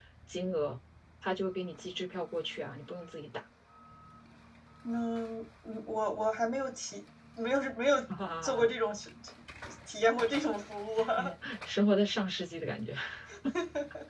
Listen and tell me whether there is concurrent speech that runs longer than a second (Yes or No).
No